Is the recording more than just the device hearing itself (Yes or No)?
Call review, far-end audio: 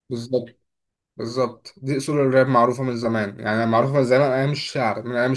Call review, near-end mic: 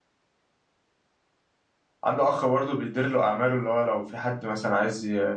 Yes